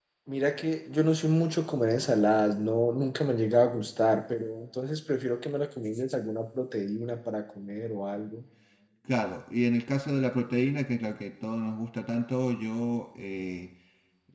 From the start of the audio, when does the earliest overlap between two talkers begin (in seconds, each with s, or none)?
none